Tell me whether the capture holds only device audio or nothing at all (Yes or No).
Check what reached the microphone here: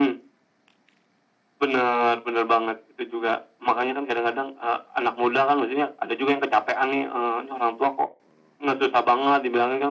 Yes